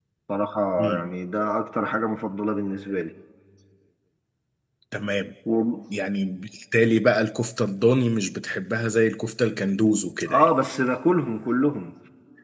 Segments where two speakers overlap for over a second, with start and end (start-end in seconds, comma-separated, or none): none